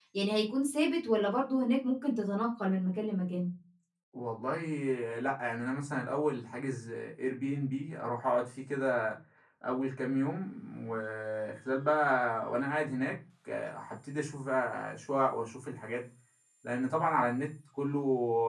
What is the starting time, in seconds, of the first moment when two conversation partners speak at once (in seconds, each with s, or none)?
none